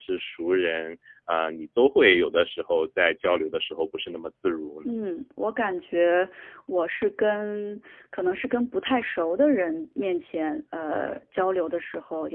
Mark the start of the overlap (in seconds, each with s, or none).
none